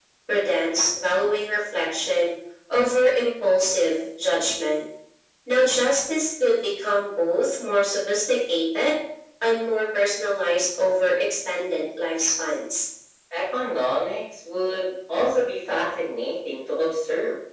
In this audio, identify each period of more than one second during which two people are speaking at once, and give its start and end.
none

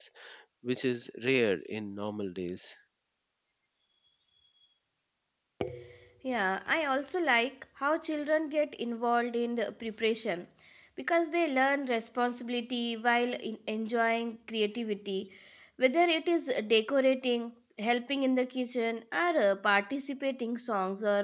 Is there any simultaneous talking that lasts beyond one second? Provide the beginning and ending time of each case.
none

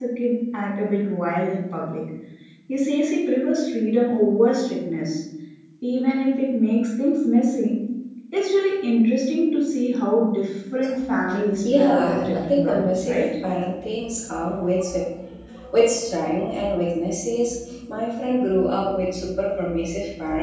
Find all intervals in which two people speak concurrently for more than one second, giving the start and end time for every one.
11.7-13.2

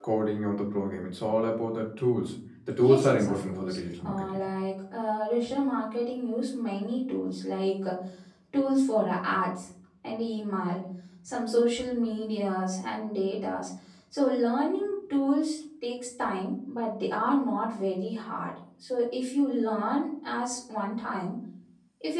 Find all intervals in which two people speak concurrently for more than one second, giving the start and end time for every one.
2.8-4.2

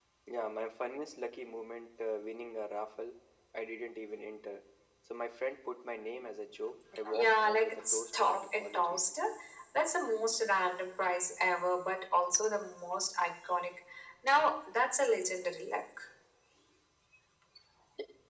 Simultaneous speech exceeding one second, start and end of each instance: 7.1-9.2

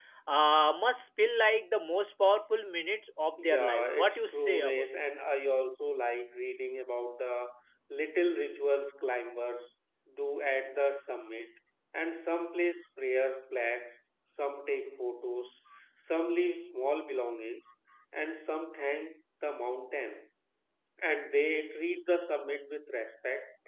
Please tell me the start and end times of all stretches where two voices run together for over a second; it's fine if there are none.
3.5-4.8

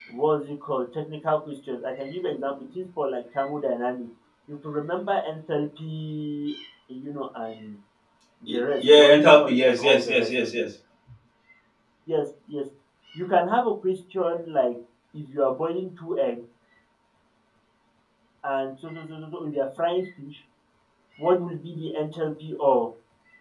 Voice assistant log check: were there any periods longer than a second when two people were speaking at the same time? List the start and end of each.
8.5-10.3

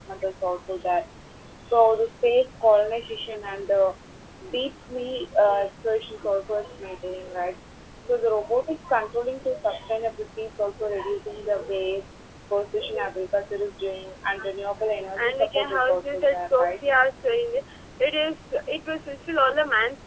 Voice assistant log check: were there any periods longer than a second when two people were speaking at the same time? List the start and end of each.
15.2-16.7

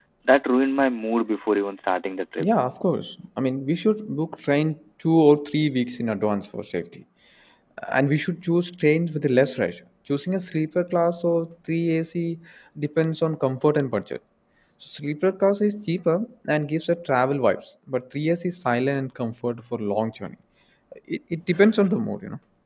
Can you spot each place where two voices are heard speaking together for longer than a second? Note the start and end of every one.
none

